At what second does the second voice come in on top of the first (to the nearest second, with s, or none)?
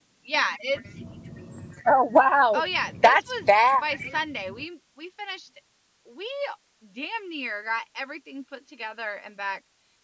3 s